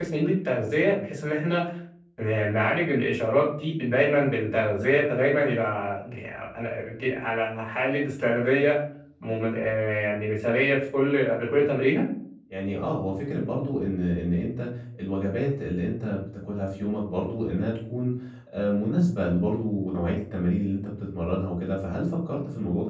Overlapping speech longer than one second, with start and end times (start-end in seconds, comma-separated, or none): none